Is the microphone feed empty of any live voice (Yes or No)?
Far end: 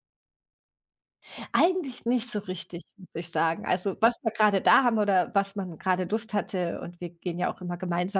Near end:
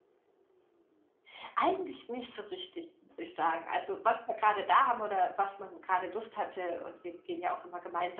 Yes